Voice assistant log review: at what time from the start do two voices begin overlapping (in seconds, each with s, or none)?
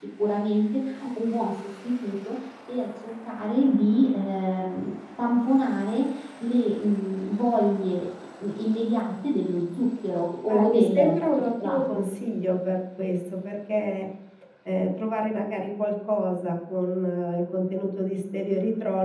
10.5 s